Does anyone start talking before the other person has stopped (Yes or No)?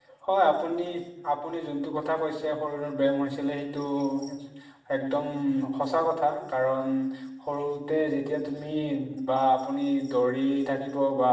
No